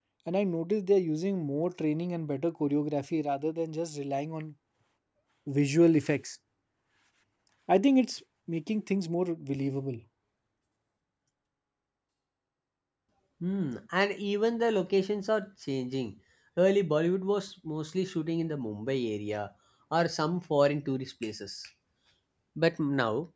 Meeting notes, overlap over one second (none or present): none